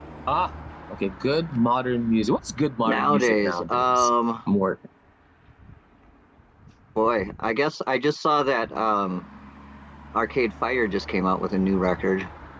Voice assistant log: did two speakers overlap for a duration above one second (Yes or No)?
Yes